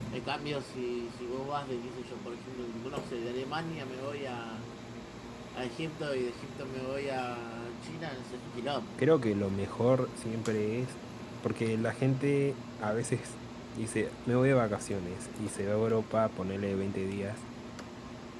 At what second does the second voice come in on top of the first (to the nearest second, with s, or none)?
none